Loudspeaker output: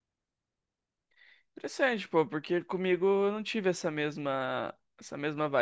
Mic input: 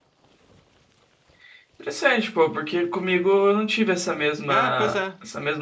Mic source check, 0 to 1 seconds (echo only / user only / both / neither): neither